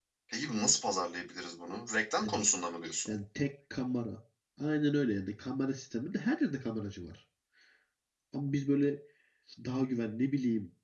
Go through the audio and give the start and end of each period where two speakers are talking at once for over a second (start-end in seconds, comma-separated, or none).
none